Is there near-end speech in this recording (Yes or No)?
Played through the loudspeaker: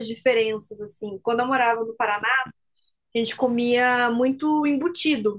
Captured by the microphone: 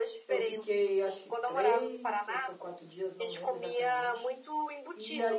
Yes